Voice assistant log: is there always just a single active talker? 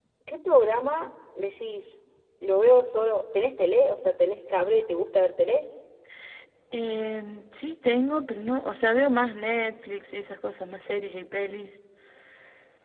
Yes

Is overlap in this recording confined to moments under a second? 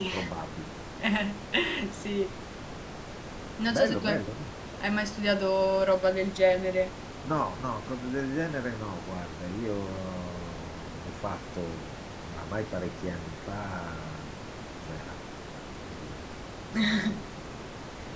Yes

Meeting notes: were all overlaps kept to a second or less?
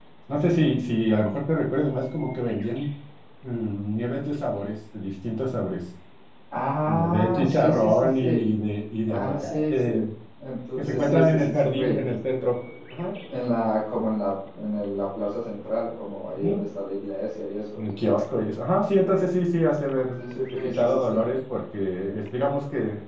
No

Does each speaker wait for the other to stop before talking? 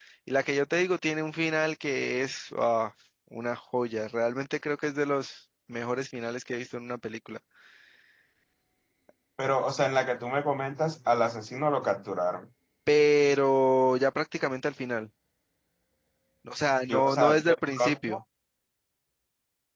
No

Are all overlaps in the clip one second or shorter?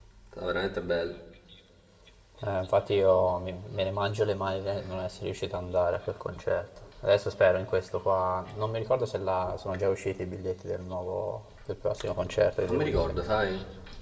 Yes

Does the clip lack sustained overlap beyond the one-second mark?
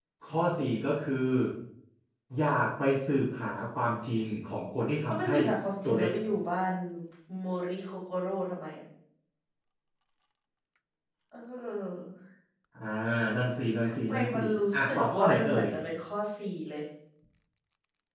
No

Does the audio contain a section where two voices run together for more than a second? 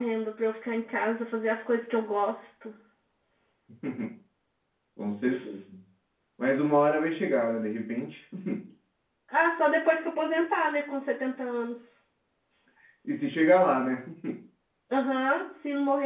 No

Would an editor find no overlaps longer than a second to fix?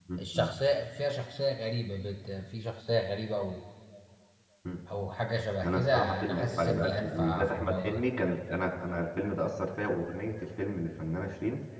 No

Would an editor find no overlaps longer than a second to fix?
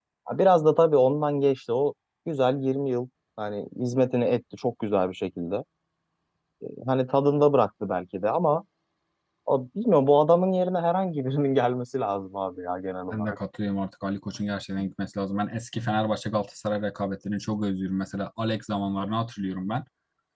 Yes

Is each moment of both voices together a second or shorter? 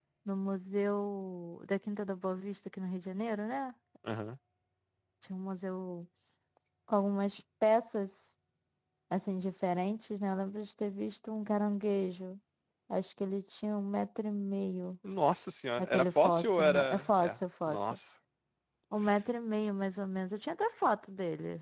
No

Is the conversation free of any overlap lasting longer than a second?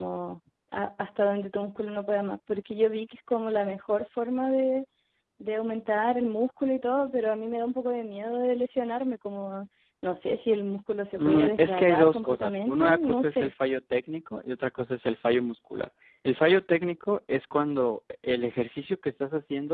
No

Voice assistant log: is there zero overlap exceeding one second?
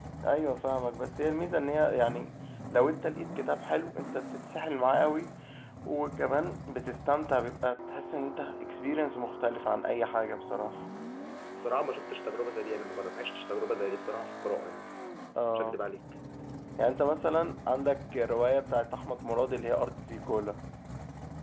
Yes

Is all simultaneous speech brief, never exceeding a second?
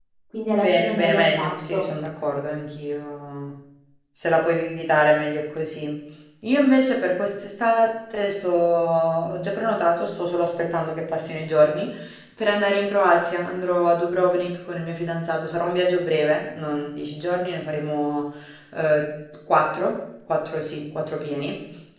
No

